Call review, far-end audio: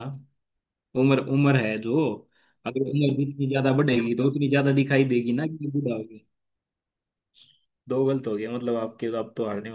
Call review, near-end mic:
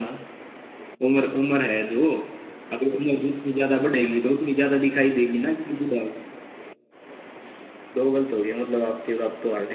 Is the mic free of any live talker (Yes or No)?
Yes